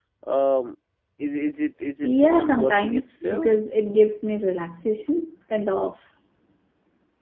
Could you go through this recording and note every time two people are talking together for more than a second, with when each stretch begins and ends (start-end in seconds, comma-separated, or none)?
2.0-3.5